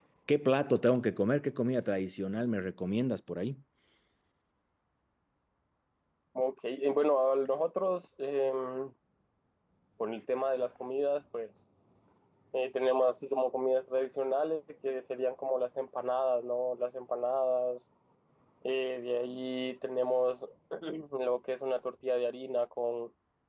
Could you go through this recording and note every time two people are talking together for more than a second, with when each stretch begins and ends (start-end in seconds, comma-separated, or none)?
none